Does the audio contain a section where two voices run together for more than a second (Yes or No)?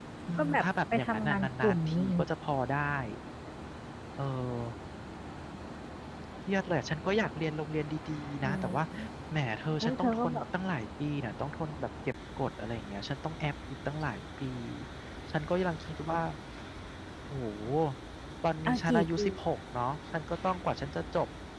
Yes